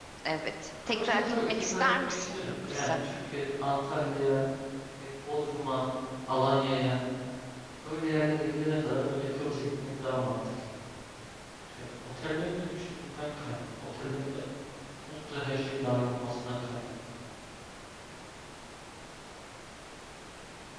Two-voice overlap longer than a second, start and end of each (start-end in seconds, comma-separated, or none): 0.9-2.9